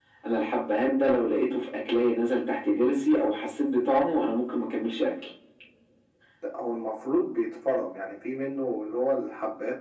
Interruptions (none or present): none